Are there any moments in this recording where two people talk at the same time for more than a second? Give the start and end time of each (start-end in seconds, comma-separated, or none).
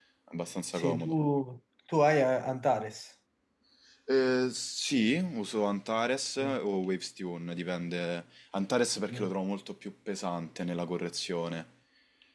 none